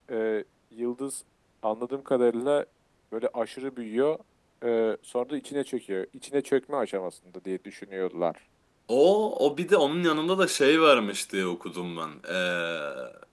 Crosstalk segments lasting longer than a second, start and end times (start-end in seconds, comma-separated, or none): none